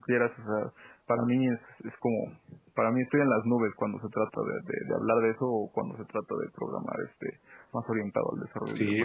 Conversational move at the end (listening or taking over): taking over